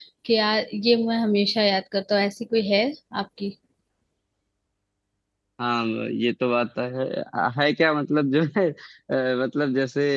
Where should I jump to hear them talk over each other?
none

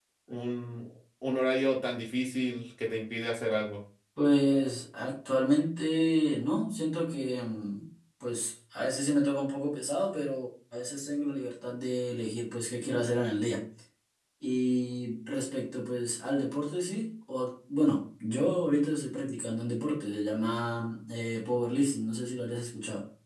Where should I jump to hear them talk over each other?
none

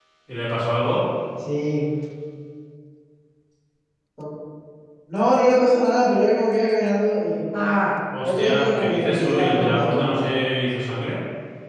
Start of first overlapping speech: 8 s

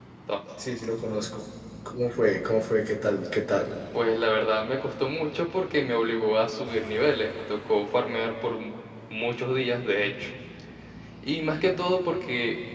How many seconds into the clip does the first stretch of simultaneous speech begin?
none

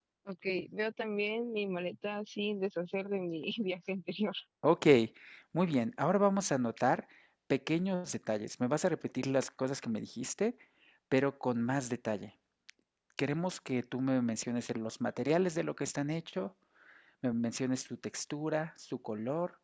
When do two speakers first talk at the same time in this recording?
none

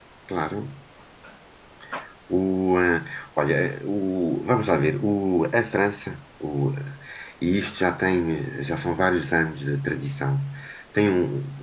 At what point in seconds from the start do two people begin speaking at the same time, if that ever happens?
none

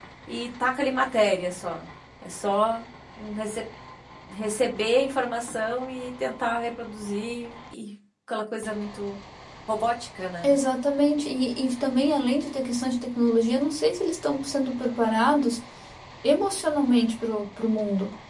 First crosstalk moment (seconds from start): none

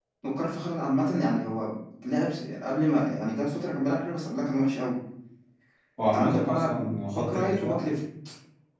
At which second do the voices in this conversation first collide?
6 s

